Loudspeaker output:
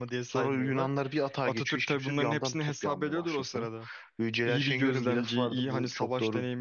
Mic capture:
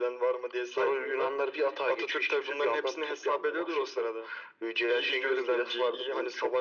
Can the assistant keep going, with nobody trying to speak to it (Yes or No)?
Yes